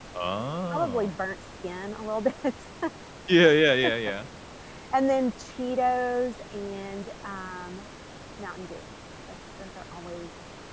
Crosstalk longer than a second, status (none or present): none